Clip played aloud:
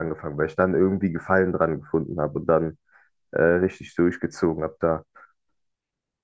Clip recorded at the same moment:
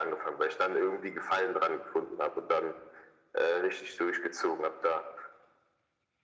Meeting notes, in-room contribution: none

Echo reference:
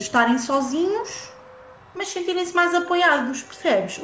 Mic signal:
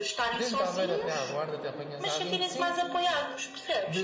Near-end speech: present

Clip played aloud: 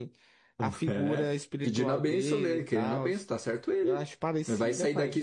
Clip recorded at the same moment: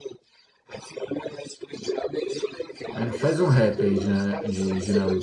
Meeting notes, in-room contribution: present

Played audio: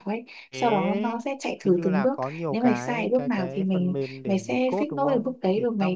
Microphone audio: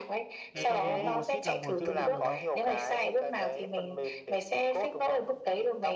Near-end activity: present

